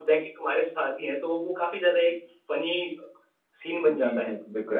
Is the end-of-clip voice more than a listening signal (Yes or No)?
Yes